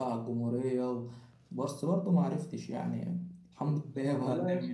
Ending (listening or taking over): taking over